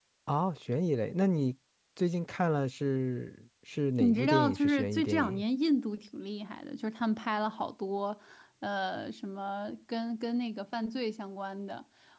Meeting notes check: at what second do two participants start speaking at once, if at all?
4.0 s

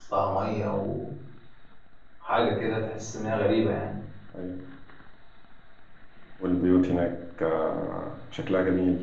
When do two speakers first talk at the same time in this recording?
none

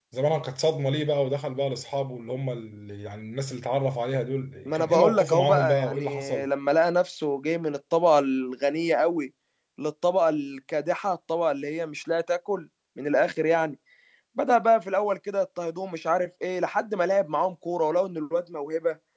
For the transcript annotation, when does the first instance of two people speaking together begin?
4.7 s

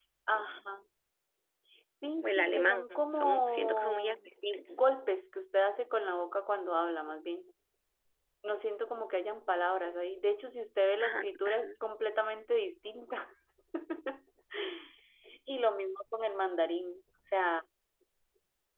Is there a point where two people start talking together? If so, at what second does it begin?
2.2 s

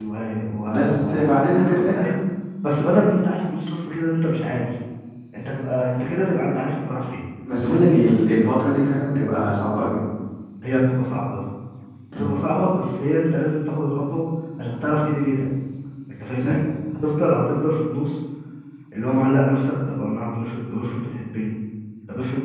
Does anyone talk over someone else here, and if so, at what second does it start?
0.7 s

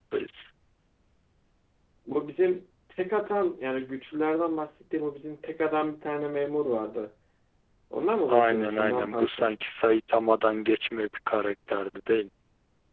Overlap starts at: 8.3 s

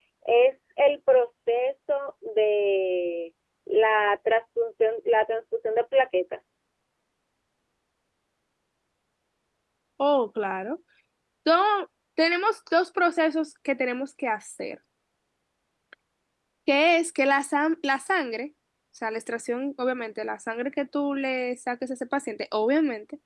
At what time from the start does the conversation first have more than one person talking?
none

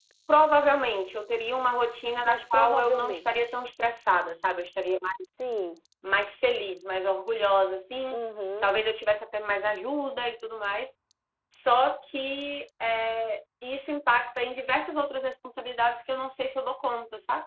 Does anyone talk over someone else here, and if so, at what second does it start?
2.2 s

